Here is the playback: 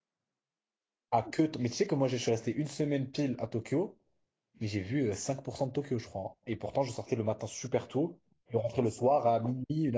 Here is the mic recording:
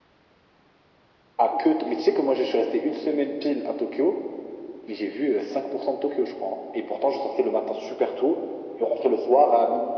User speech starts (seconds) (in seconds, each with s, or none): none